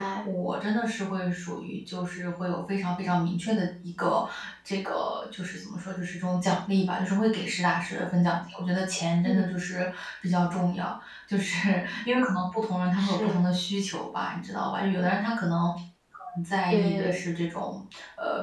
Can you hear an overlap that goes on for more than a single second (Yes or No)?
No